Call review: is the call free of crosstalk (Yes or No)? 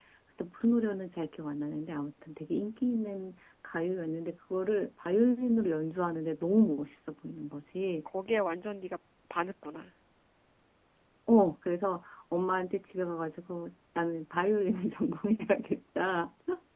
Yes